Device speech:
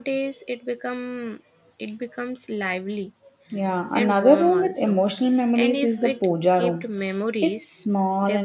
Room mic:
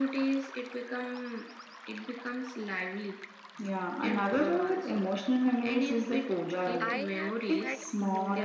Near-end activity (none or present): present